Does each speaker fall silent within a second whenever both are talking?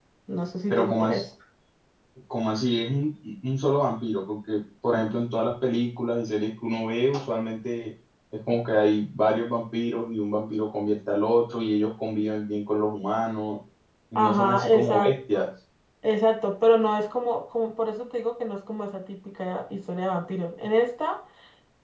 No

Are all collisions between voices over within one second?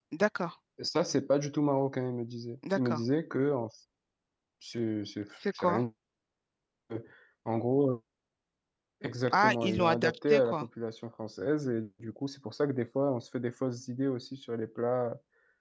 No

